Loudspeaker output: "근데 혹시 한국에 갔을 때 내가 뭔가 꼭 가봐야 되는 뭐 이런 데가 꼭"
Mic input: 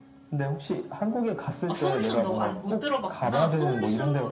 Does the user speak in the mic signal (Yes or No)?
Yes